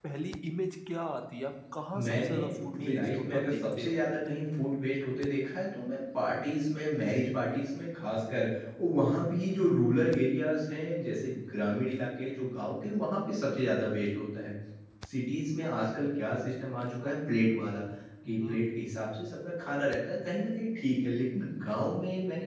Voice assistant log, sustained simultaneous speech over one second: present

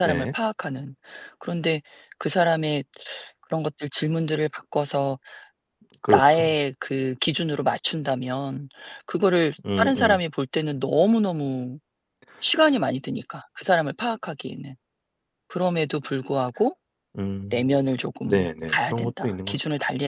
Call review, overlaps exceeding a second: present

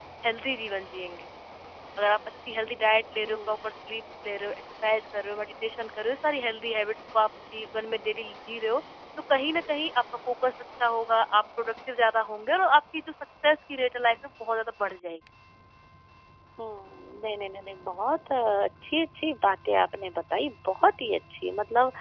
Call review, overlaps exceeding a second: none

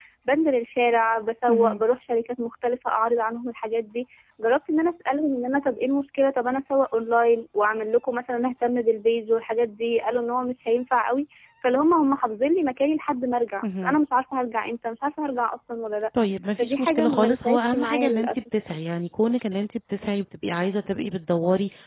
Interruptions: present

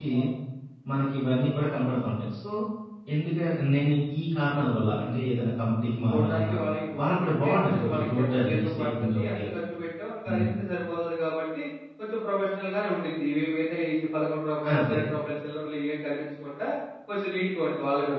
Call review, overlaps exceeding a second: present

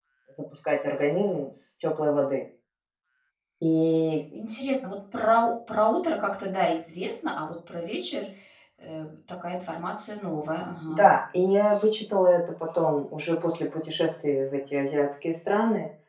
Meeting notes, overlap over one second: none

